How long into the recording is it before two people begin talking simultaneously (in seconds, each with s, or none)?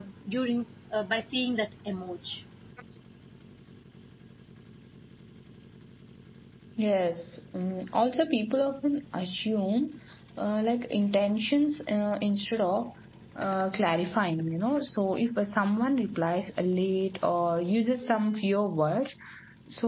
none